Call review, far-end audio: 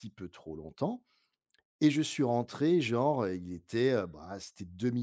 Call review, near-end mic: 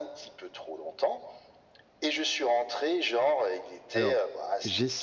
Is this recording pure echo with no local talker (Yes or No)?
No